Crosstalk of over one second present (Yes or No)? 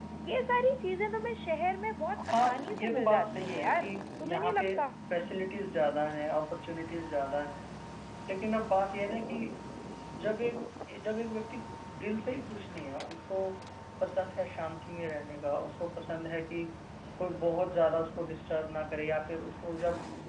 Yes